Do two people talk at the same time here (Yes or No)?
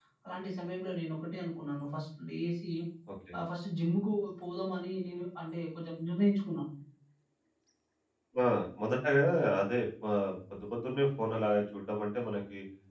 No